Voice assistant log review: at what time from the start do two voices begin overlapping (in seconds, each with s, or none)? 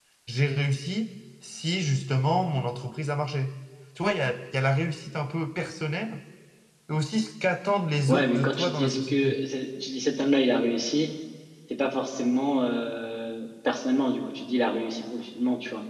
8.1 s